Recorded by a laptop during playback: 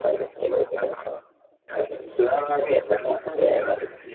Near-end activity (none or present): none